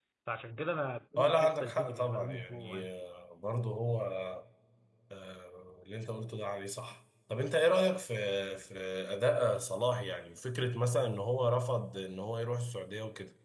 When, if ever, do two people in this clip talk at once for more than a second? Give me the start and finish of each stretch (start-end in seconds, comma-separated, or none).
1.2-2.9